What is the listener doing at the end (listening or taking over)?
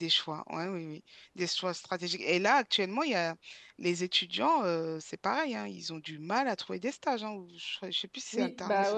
taking over